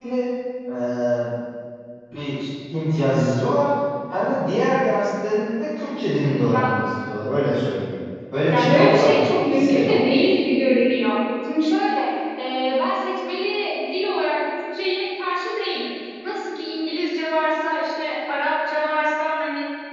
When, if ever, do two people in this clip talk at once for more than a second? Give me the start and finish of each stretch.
8.5-10.0

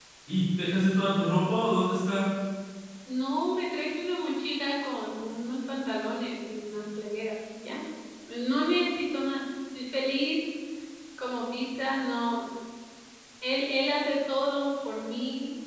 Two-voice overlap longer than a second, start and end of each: none

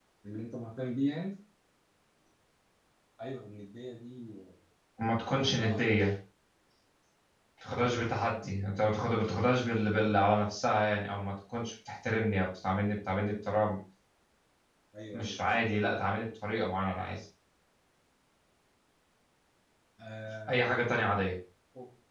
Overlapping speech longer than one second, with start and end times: none

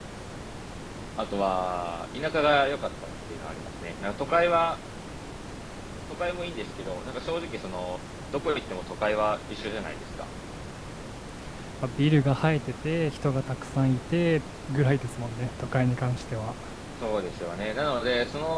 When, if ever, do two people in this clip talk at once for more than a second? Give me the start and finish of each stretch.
none

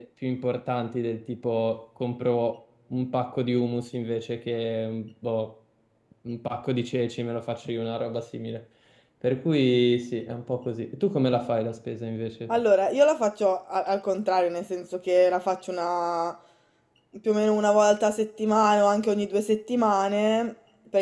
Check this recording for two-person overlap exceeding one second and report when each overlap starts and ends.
none

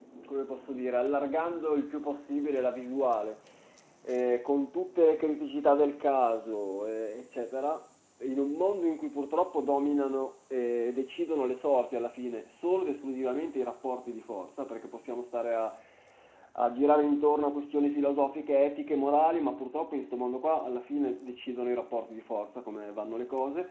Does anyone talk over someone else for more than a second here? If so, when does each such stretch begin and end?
none

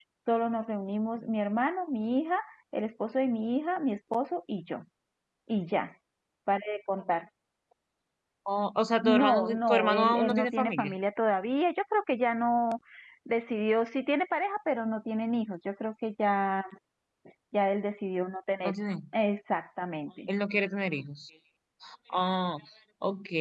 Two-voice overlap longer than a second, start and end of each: 9.0-10.9

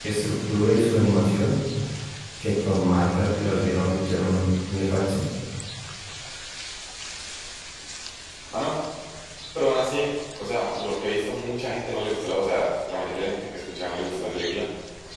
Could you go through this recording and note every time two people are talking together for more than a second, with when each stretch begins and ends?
none

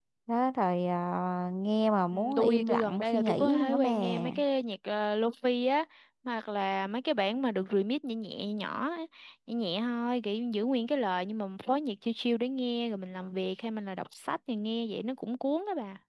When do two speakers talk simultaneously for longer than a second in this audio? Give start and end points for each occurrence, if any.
2.1-4.2

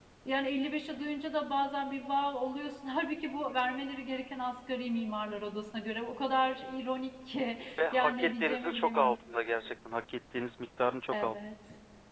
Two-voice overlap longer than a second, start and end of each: 7.9-9.1

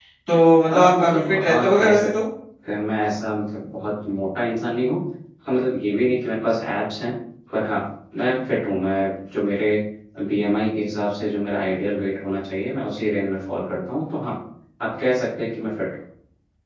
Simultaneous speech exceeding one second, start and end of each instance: 0.7-2.1

